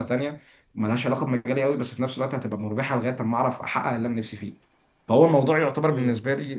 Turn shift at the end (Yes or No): No